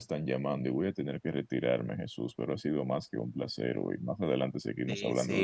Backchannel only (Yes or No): No